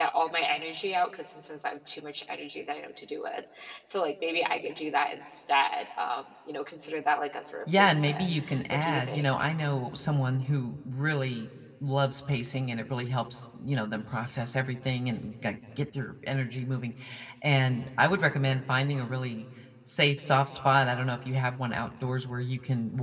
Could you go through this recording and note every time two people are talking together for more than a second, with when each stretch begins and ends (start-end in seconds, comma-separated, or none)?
7.8-9.2